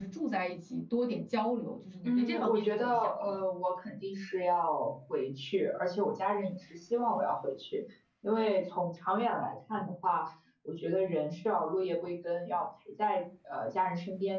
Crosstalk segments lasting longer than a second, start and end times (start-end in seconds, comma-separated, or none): 2.0-3.4